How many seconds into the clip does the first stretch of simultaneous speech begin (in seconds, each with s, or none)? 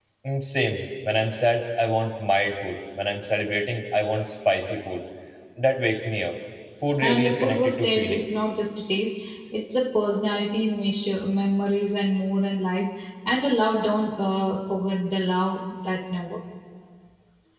7.0 s